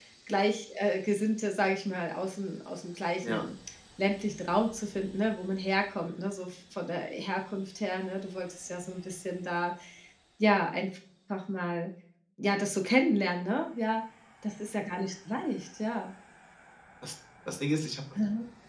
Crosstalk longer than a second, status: none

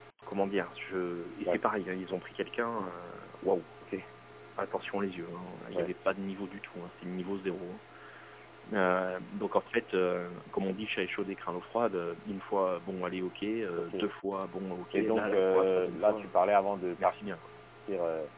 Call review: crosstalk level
present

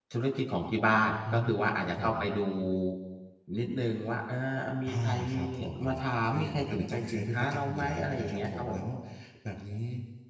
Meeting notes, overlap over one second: present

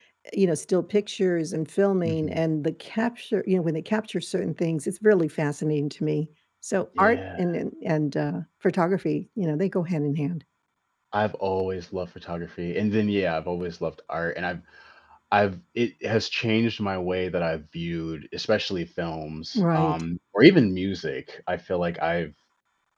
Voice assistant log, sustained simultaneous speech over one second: none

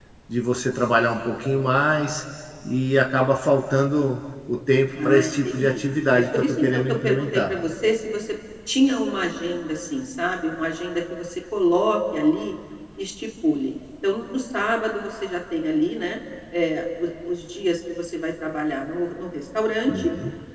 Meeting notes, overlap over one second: present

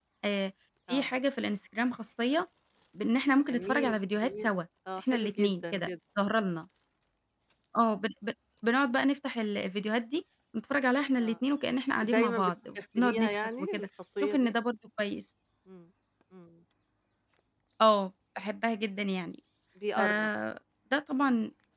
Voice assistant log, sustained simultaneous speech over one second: present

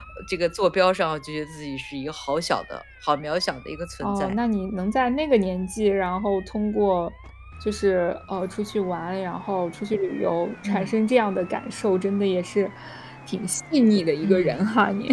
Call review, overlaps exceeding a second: none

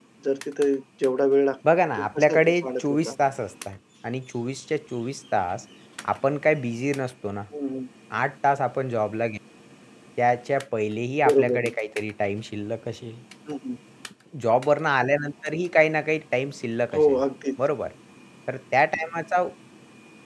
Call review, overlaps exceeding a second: present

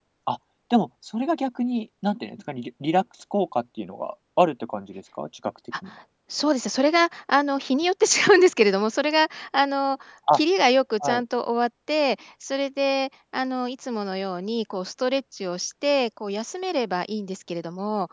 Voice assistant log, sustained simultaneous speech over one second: none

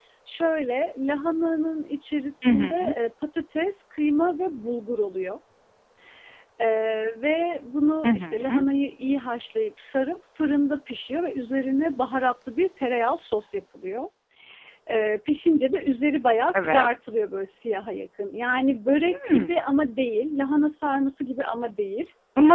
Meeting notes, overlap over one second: none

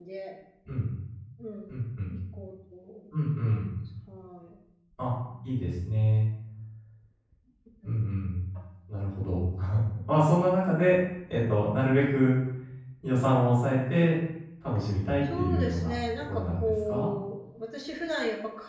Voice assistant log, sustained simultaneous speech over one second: present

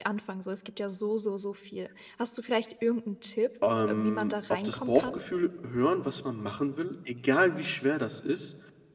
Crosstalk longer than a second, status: present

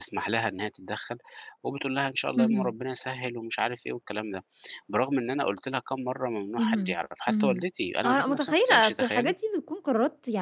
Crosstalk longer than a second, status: present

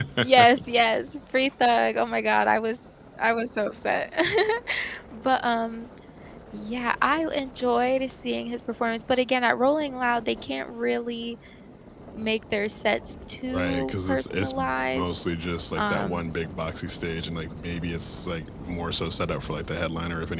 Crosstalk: present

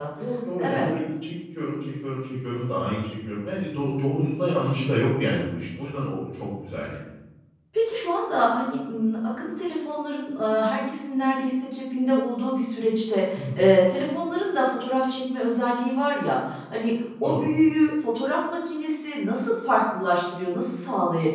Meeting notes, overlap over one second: none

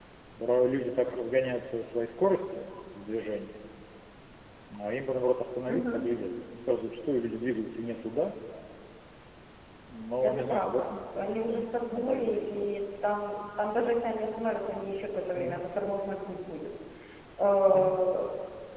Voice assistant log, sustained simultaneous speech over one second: present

